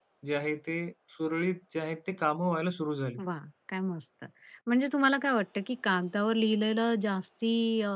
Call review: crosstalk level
none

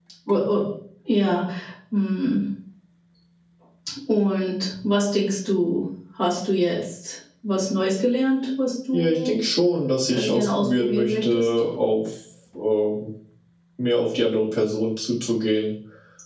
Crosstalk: present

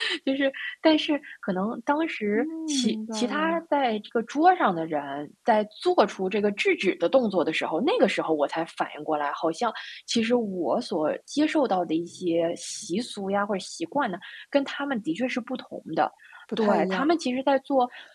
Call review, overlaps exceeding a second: present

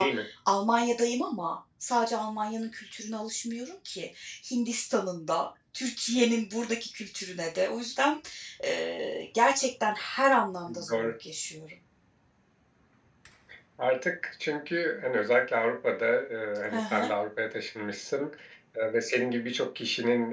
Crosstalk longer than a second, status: none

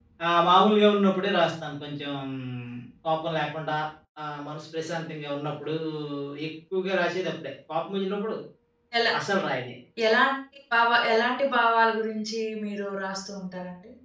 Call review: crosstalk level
none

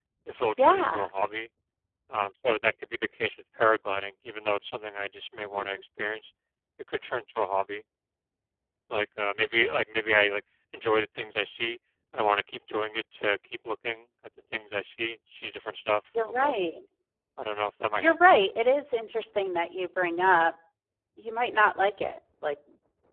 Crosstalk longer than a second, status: none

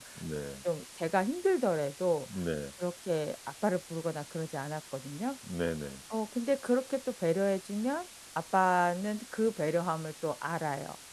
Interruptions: none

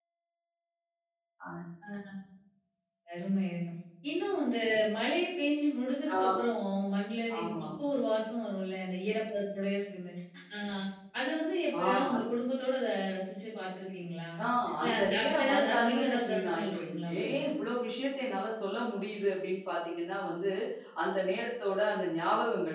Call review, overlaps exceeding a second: present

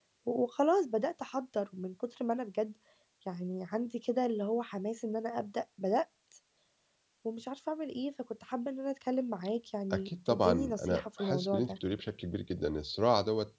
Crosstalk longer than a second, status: present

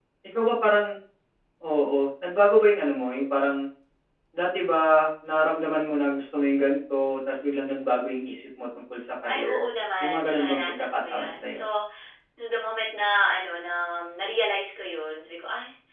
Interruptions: present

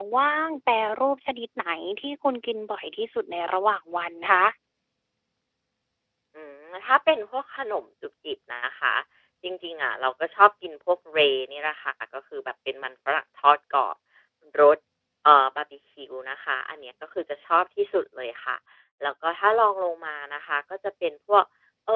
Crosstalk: none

